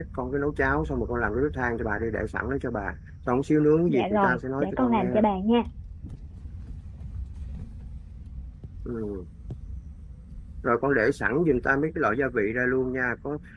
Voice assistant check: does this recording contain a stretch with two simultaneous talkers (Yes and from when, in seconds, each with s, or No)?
Yes, from 3.9 s